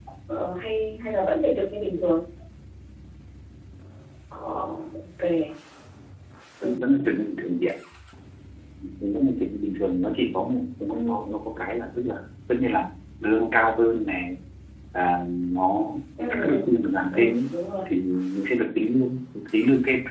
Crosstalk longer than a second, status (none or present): none